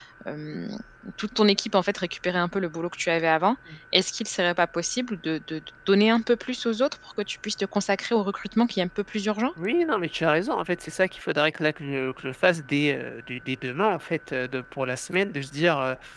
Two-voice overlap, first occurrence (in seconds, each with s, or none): none